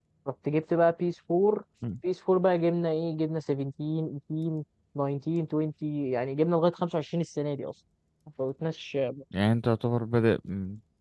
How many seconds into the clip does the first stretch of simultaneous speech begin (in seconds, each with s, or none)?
none